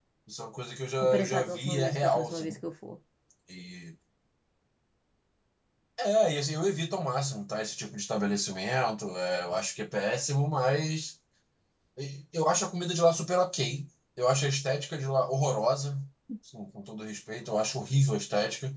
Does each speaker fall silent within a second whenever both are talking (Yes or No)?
No